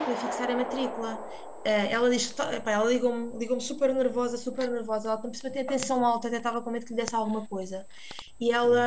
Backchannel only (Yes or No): Yes